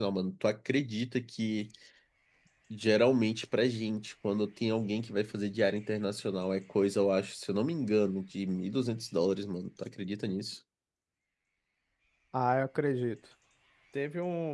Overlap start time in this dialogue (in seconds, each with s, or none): none